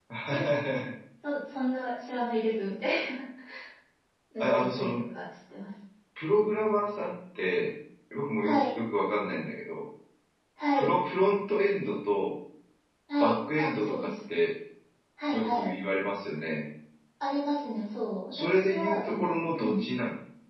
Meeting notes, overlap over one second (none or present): present